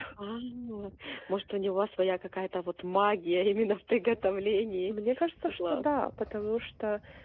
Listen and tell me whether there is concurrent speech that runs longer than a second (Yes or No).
No